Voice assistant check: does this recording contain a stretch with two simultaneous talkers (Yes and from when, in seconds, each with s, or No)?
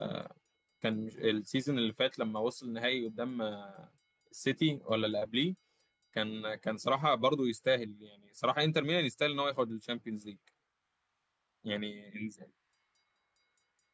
No